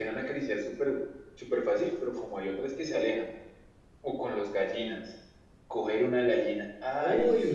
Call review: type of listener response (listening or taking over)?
taking over